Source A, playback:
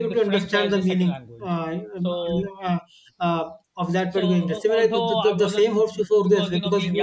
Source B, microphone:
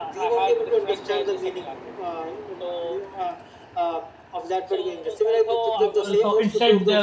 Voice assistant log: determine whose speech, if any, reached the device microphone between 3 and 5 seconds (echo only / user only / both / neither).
echo only